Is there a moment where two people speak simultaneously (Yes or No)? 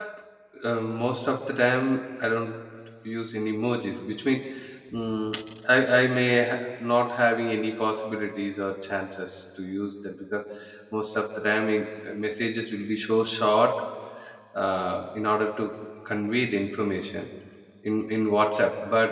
No